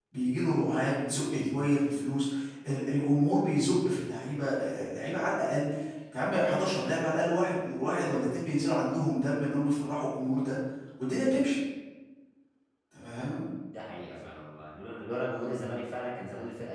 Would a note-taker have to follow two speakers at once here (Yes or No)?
No